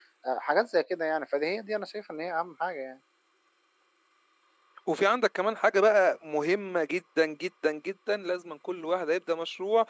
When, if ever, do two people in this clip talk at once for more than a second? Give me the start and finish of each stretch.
none

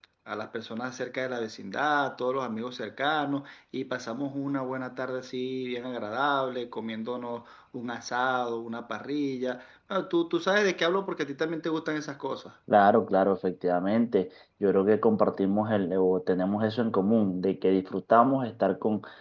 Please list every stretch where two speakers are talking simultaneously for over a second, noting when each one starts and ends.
none

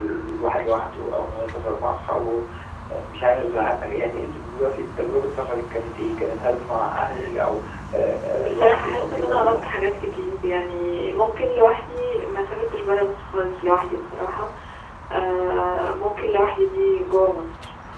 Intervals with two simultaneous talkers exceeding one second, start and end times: 8.3-9.6

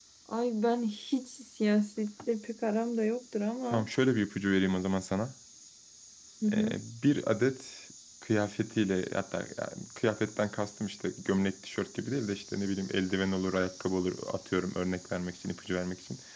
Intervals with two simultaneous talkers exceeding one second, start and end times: none

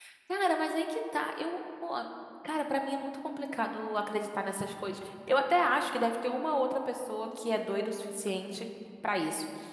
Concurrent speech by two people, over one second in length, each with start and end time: none

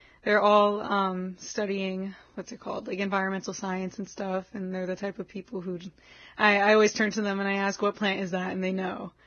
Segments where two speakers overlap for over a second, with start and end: none

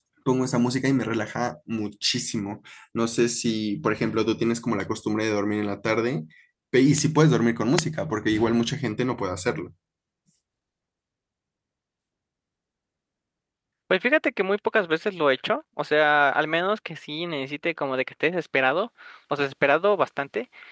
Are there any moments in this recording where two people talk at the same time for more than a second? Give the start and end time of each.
none

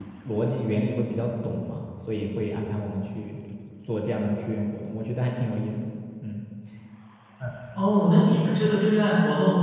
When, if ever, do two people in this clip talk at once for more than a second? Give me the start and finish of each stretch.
none

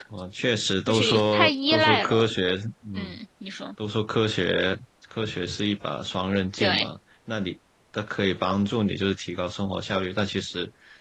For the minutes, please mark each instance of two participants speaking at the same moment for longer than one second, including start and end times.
0.9-2.3

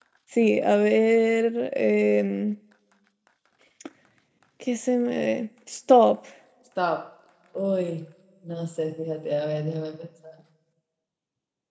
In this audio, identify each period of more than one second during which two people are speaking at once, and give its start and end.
none

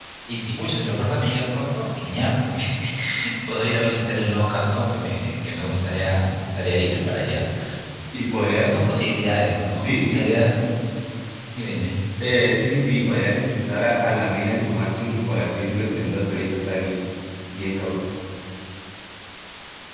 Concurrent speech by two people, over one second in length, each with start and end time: none

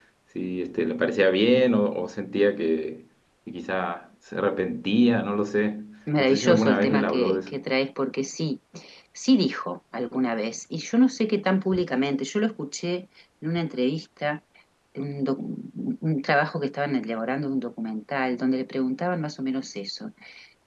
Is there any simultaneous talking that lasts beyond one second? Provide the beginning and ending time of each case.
6.2-7.6

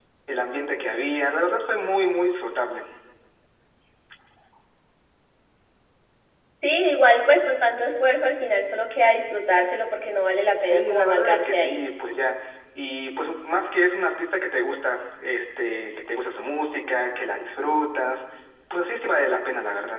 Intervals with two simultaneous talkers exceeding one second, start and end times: 10.6-11.8

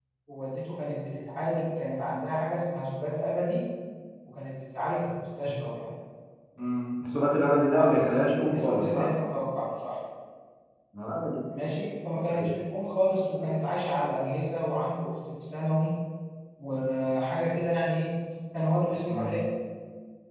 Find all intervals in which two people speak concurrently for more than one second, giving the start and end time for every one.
7.8-9.1

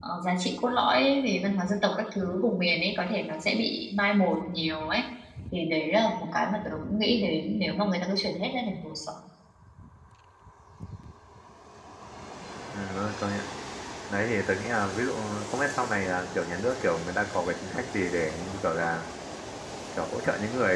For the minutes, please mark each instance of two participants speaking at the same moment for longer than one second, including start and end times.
none

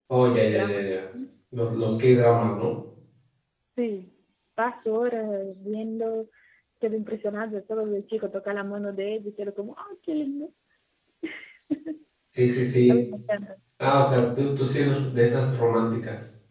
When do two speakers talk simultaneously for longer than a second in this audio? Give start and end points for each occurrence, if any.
none

